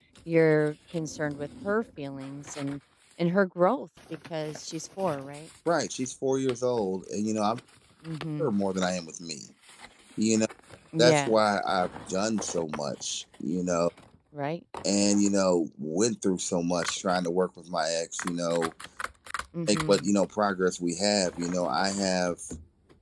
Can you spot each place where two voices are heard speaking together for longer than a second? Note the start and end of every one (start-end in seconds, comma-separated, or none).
none